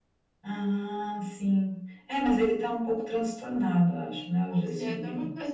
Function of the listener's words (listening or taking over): taking over